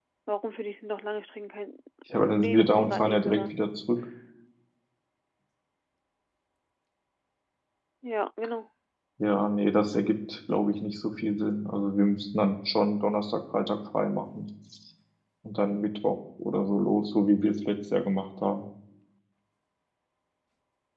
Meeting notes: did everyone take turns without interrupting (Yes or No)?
No